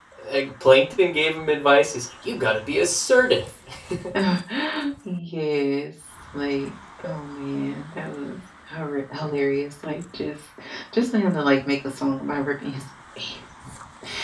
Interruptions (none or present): none